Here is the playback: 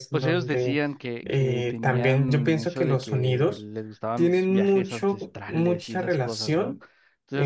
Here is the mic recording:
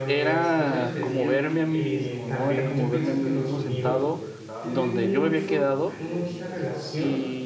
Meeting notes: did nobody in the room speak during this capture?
No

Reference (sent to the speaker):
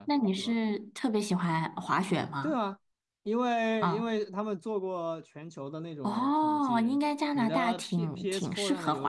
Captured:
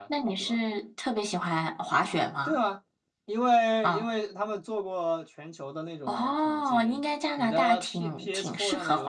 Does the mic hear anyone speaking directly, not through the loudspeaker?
No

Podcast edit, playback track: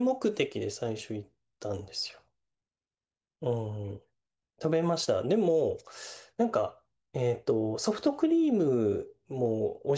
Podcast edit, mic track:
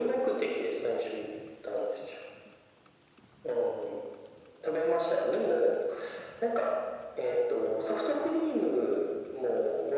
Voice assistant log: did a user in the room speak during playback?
No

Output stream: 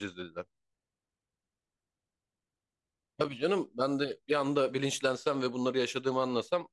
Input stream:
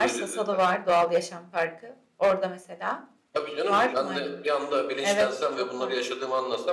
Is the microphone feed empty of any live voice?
No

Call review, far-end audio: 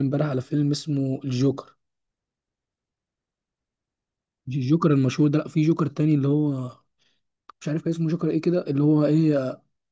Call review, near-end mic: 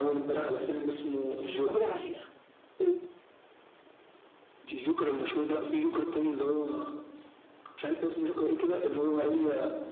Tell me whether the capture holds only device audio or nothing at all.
No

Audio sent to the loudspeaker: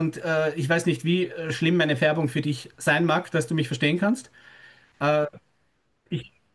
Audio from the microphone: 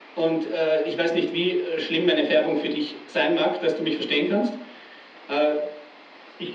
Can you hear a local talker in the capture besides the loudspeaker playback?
No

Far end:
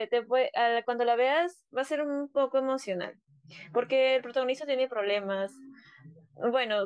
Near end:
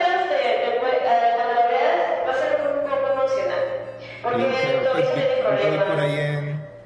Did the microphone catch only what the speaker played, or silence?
No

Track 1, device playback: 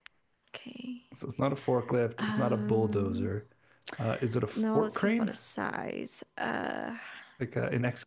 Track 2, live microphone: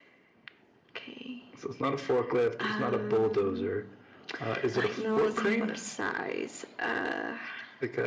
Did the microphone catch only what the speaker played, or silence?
No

